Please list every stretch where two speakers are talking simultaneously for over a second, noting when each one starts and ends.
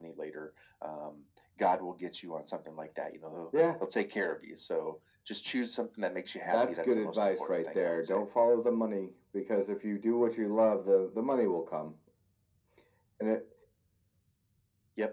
6.4-8.2

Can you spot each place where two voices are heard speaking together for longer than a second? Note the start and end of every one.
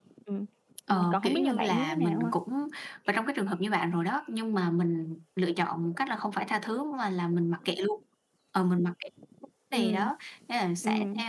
0.9-2.3

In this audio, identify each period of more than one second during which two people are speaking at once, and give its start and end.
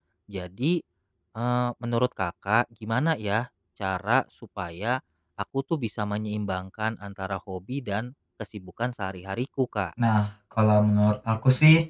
none

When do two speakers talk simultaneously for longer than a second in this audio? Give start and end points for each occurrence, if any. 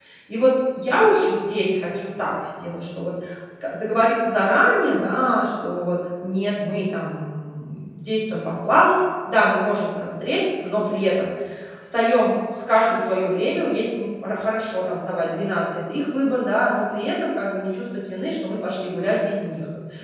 none

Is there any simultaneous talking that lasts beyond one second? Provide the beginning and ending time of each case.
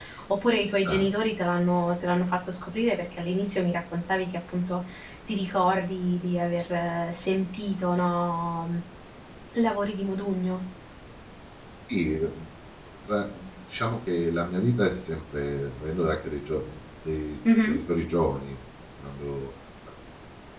none

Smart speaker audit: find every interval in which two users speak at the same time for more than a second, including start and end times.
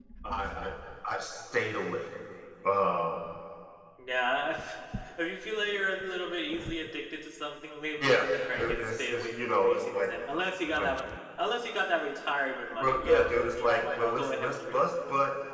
8.6-9.9, 12.8-14.7

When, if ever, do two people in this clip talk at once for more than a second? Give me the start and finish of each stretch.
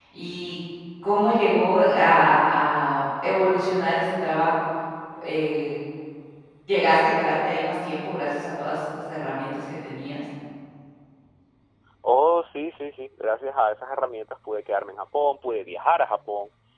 none

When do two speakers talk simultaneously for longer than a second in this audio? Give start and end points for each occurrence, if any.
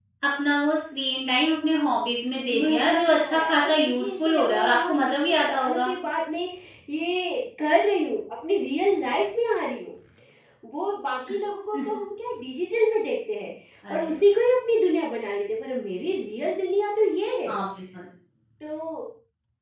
2.5-5.9

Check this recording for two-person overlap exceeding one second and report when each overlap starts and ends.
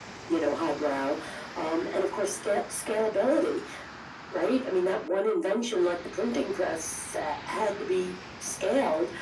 none

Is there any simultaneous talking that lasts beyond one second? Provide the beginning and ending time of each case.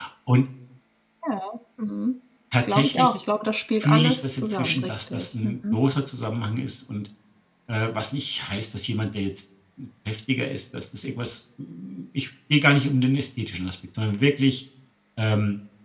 3.8-5.8

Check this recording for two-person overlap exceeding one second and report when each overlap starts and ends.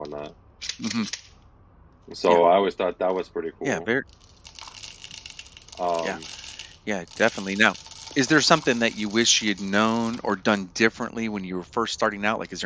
none

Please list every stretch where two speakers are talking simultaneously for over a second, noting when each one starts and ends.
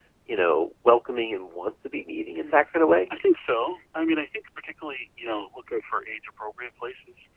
none

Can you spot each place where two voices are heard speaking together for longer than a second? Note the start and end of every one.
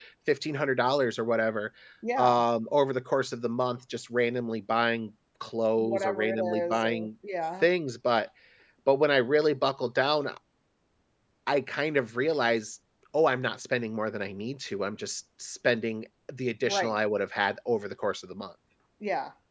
5.8-7.1

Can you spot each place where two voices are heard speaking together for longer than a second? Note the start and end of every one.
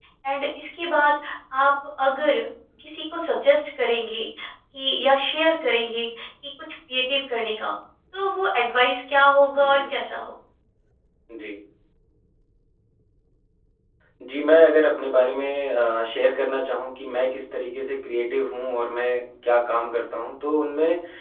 none

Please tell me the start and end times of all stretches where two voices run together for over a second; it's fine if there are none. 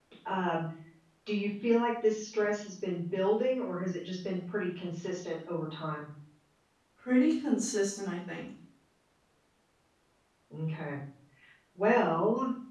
none

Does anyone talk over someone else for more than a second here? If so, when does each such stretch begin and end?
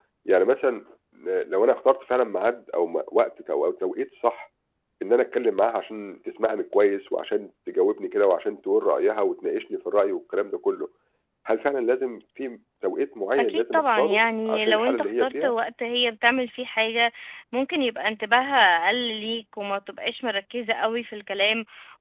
13.4-15.6

